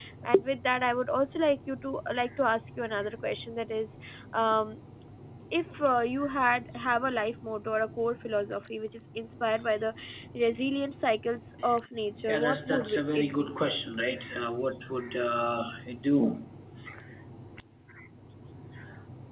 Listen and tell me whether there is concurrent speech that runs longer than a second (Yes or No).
Yes